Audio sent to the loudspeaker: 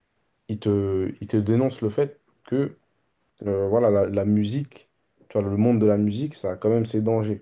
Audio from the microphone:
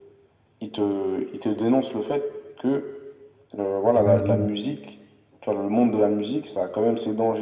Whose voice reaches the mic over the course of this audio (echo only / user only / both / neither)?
both